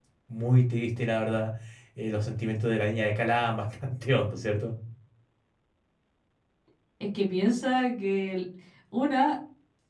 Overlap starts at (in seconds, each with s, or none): none